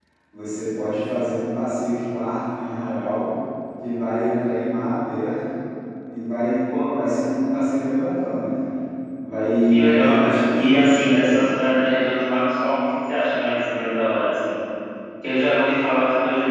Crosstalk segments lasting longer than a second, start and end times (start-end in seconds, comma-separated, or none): 9.9-11.5